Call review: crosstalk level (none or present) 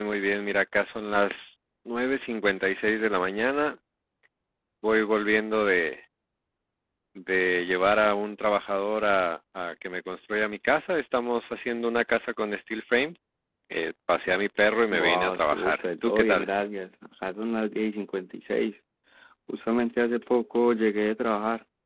present